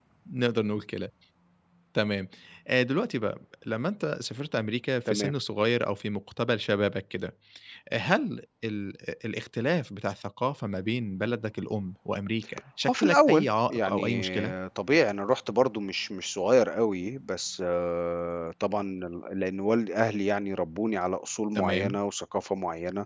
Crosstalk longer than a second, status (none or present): present